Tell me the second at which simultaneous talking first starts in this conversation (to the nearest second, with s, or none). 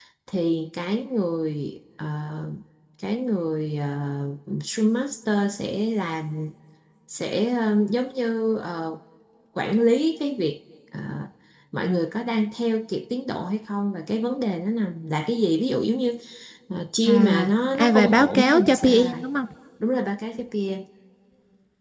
17 s